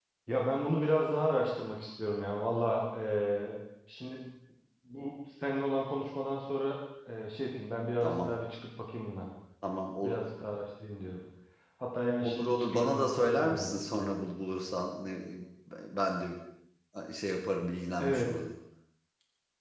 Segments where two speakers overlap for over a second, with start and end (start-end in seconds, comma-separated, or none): 12.2-14.2